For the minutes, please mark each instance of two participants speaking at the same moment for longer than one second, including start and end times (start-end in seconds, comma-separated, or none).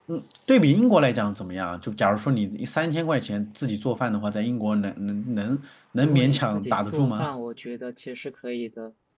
6.0-7.3